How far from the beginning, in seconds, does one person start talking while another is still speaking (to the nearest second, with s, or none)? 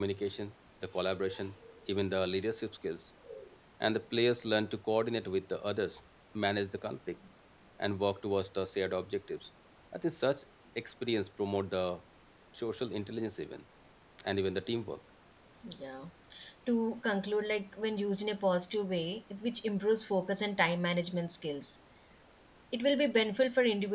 none